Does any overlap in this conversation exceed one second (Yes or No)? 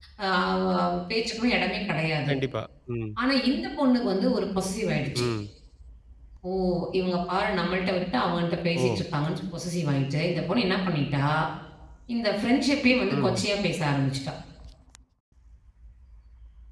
No